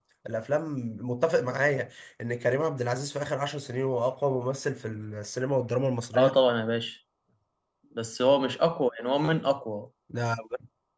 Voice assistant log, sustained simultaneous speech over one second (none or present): none